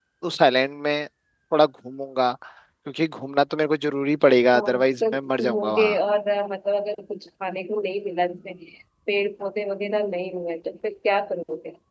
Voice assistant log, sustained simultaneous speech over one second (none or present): present